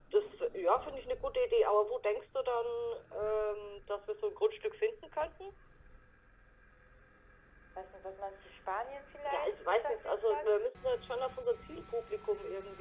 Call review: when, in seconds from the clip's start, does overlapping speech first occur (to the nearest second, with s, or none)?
9 s